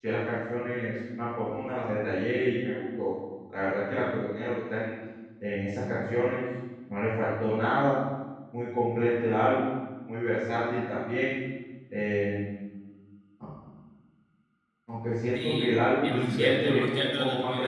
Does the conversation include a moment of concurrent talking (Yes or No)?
Yes